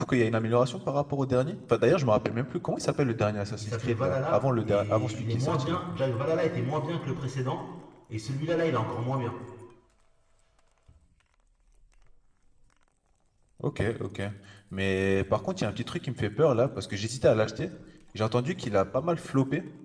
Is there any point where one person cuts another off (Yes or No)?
Yes